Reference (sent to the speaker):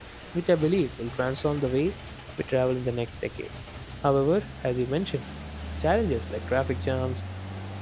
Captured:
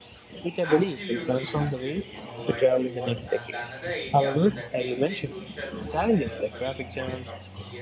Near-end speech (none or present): present